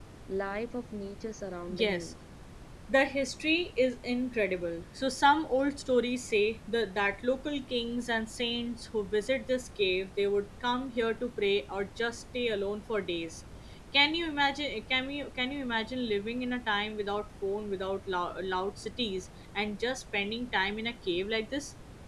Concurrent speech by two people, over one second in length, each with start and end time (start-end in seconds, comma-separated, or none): none